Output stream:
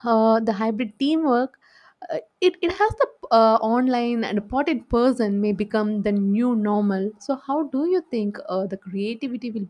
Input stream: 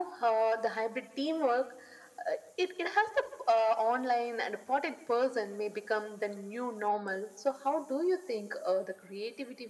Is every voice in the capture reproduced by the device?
Yes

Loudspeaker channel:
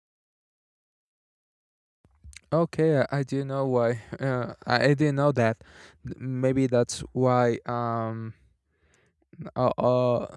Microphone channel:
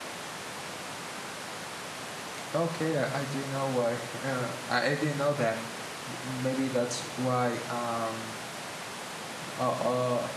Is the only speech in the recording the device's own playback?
Yes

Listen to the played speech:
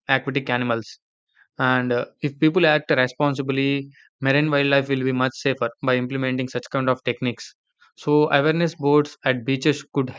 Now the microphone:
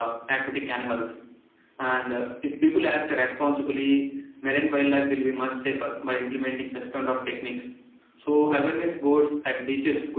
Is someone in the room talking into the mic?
No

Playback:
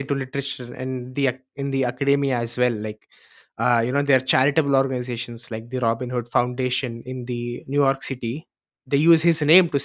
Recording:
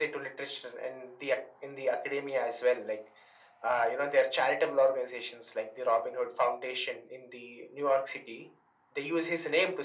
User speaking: No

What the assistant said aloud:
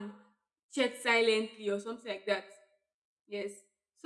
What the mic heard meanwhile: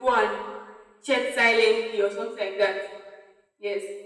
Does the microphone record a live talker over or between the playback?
No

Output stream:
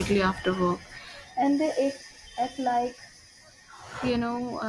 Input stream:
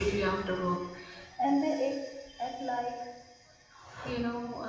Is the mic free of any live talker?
Yes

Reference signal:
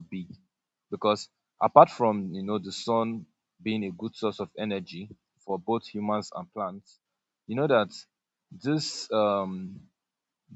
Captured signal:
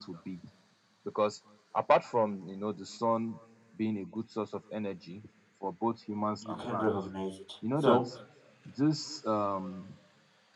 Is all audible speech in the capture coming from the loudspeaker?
No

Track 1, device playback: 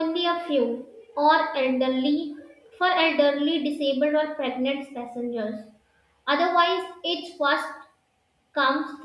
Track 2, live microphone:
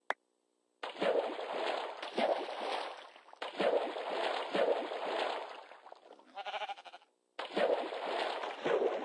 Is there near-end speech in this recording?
No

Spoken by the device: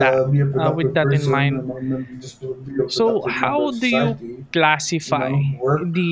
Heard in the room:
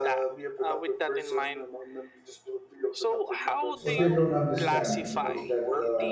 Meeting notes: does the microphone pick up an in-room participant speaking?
Yes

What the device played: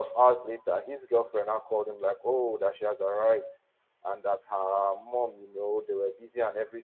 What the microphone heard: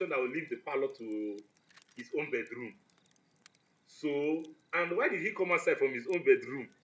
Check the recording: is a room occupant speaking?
Yes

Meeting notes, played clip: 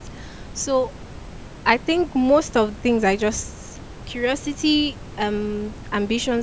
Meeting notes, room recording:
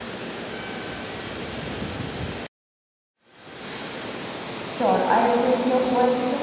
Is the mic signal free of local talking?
No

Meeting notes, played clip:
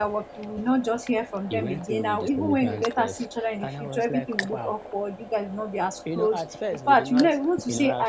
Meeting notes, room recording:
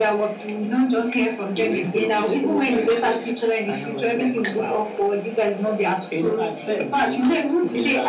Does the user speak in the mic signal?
No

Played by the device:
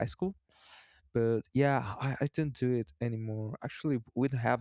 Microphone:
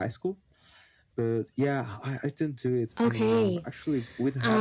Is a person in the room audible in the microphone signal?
Yes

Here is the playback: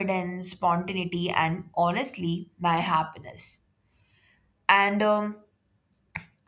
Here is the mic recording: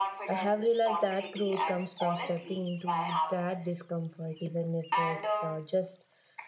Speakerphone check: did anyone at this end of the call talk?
Yes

